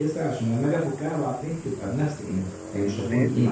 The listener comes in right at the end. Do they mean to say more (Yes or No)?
Yes